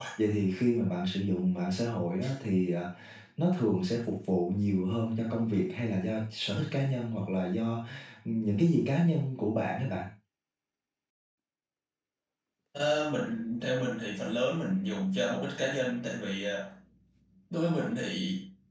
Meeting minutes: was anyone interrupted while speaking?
No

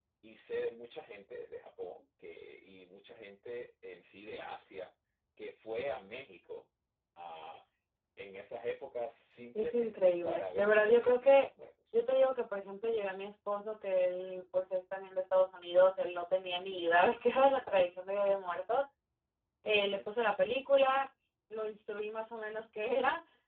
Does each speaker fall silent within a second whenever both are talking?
No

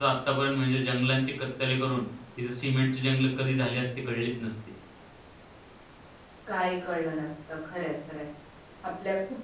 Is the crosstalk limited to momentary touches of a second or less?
Yes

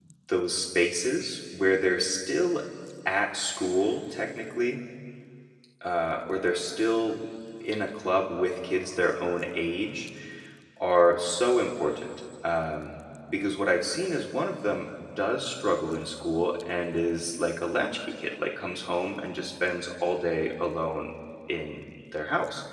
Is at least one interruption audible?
No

